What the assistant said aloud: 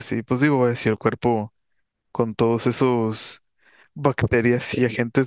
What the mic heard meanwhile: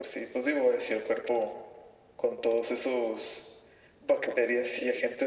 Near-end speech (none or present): none